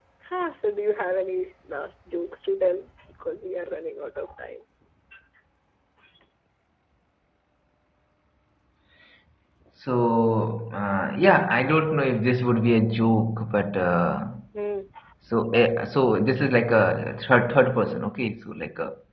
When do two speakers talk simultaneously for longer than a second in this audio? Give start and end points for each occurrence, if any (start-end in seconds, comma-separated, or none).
none